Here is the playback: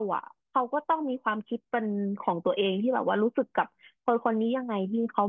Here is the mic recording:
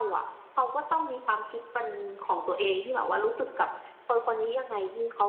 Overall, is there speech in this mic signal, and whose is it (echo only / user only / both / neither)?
echo only